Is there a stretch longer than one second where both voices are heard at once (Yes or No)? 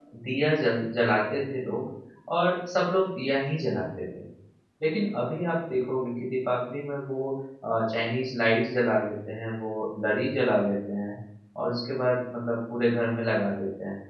No